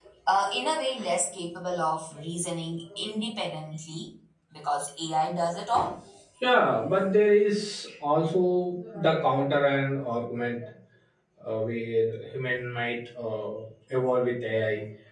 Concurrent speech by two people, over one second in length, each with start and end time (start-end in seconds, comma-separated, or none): none